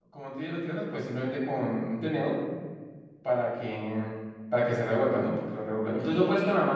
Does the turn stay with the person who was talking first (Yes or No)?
Yes